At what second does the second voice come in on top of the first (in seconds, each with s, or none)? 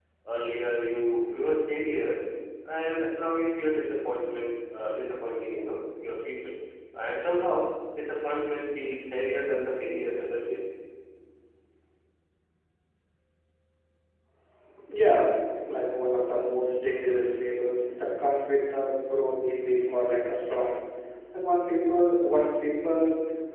none